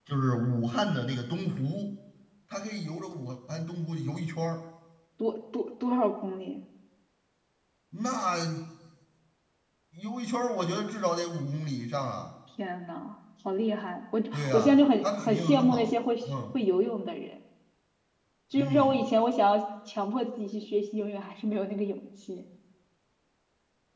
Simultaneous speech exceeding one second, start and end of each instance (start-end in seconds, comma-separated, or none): 14.3-15.9